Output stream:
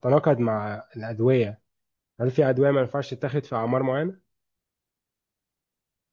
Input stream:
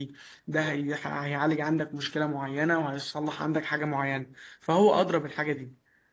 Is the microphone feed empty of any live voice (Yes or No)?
No